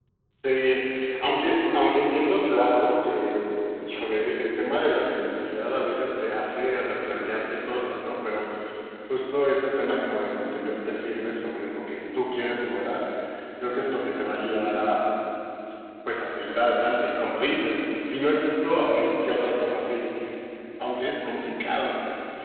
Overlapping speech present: No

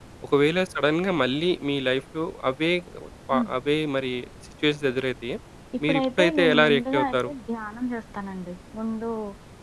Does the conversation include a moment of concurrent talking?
Yes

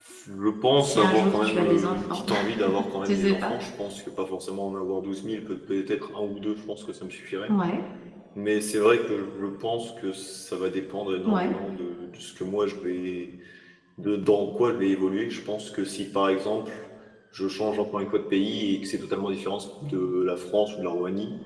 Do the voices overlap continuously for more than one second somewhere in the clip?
Yes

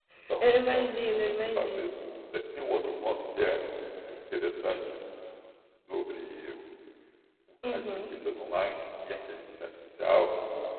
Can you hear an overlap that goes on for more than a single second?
Yes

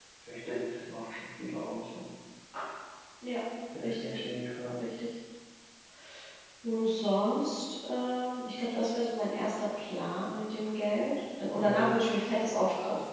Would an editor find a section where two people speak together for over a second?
No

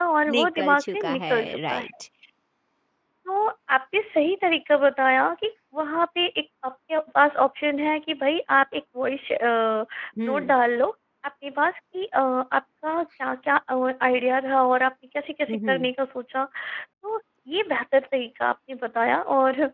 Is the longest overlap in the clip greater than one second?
Yes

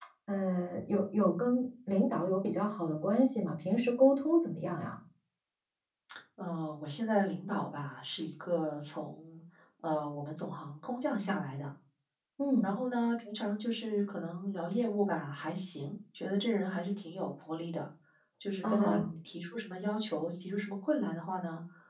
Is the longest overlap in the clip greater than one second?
No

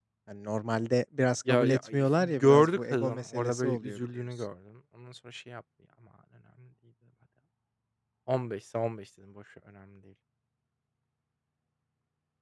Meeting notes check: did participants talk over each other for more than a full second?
Yes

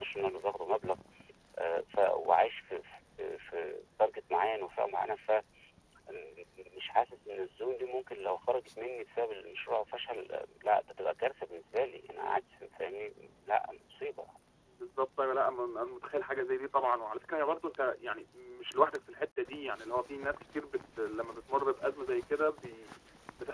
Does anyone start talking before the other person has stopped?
No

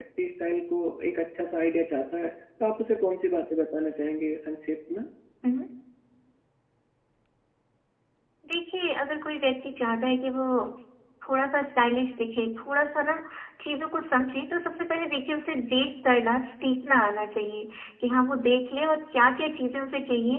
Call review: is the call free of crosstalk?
Yes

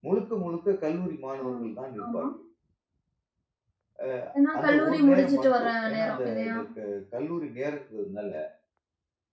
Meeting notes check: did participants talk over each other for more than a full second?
Yes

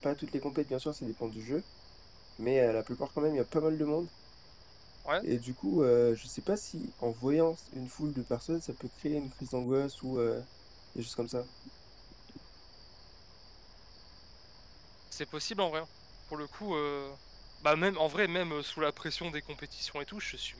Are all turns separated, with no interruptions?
Yes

